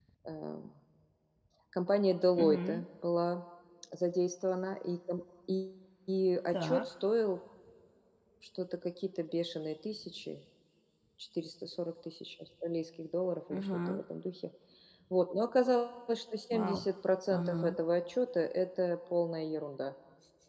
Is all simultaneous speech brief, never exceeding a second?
Yes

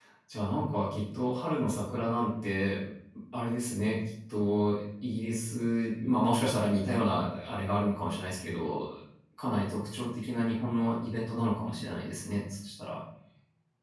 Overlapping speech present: No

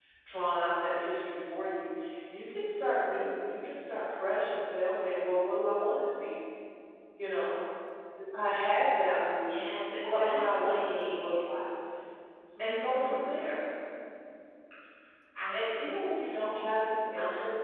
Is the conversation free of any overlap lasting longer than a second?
No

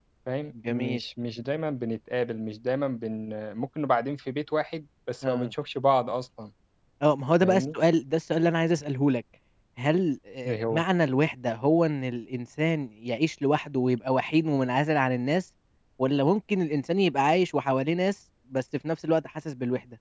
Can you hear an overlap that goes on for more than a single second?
No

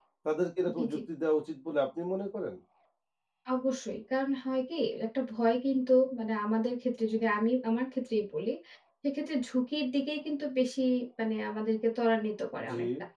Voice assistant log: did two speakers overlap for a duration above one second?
No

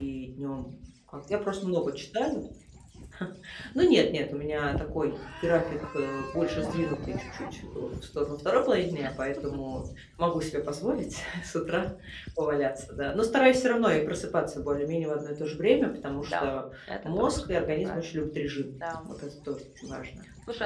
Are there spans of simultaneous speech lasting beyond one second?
Yes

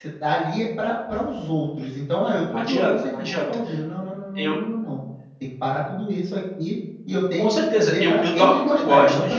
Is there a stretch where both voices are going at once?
Yes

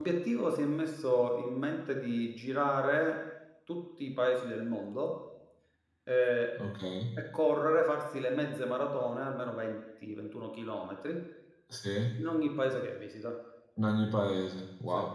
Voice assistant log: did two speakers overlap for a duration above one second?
No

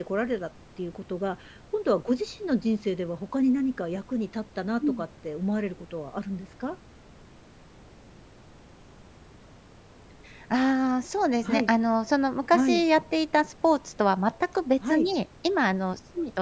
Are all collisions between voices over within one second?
Yes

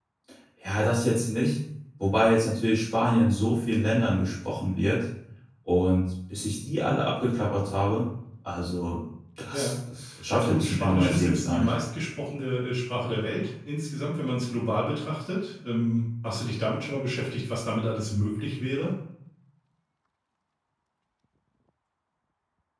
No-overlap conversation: No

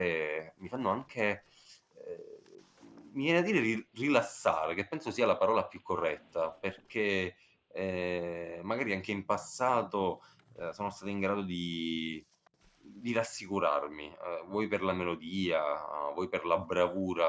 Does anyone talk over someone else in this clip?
No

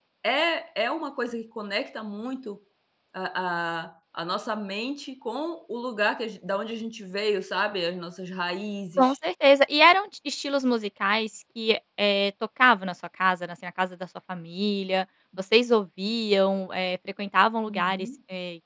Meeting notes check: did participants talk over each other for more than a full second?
No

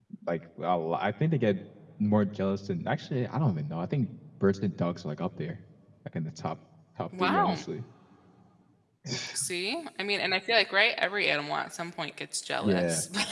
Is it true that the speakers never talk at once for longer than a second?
Yes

